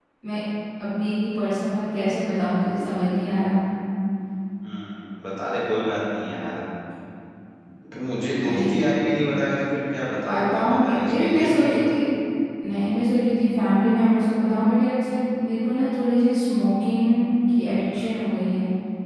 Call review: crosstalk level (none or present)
present